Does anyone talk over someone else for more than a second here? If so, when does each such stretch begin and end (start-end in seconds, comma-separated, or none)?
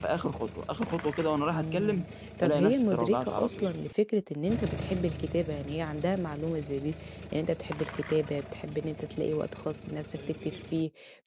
2.4-3.7